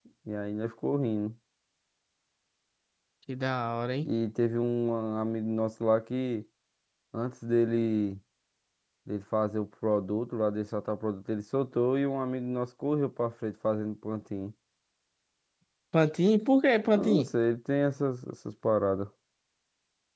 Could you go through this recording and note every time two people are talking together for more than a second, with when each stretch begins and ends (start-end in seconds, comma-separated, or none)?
none